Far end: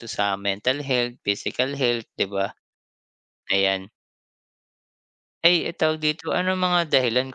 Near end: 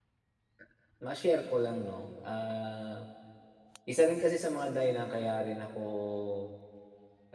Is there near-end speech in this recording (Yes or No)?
Yes